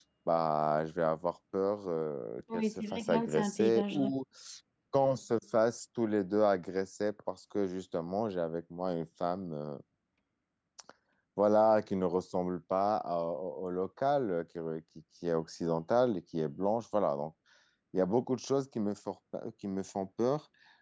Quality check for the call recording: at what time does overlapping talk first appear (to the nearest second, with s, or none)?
3 s